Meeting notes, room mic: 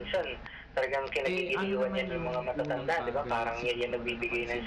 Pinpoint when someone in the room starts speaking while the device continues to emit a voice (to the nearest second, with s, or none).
1 s